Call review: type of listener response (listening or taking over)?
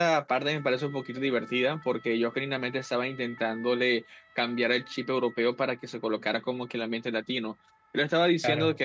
listening